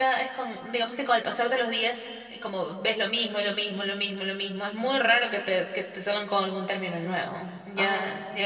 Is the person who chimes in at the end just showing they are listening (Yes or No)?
Yes